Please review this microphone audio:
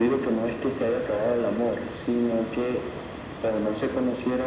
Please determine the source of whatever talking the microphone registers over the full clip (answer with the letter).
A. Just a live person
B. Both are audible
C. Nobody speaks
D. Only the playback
D